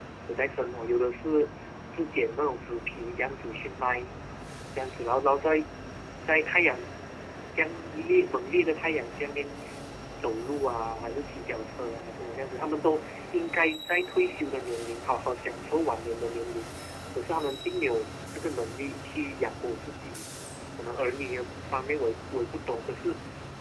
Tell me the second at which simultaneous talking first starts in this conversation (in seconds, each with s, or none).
none